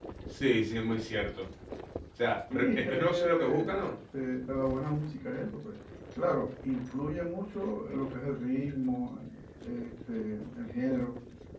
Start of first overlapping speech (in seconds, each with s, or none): 2.5 s